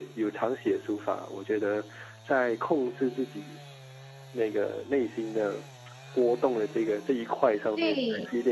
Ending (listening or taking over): taking over